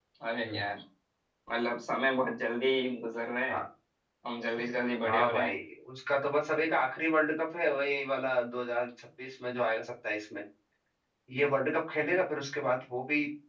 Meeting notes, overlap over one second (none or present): none